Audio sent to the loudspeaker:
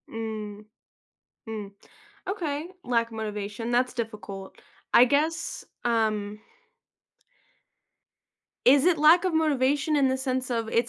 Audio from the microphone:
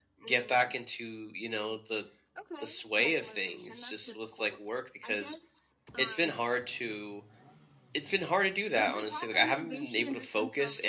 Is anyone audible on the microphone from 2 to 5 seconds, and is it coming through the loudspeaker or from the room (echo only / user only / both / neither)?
both